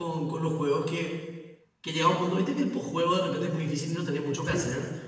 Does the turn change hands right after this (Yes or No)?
Yes